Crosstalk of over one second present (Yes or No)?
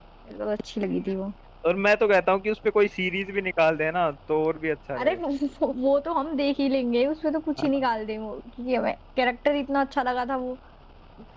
No